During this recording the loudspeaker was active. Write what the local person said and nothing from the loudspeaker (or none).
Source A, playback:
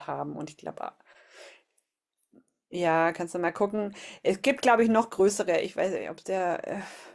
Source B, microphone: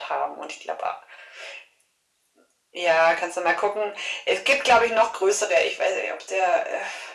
none